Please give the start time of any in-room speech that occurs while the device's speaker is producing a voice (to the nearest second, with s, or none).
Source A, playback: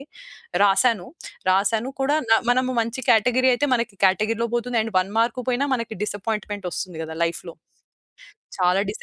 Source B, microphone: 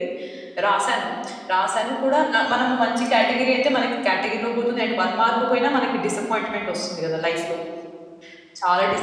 none